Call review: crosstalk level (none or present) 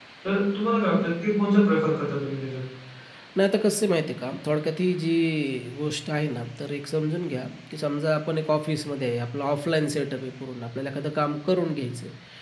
none